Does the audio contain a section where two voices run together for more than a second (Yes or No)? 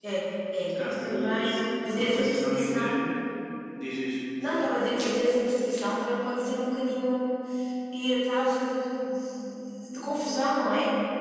Yes